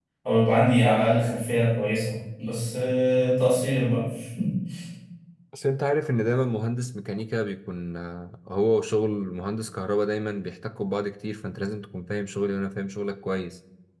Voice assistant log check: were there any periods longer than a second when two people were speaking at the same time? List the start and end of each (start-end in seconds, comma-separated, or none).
none